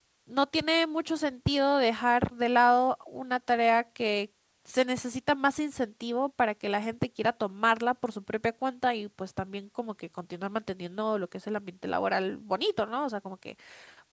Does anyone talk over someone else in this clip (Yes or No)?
No